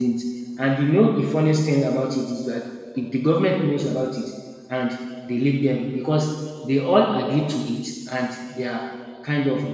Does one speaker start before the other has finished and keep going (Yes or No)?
No